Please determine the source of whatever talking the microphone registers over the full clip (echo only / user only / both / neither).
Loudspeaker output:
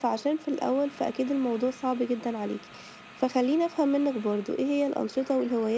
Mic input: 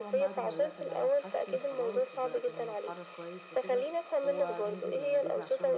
both